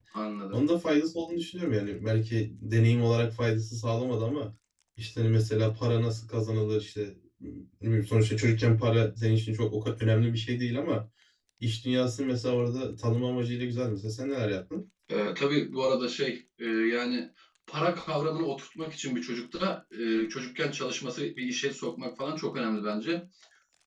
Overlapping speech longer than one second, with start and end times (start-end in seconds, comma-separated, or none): none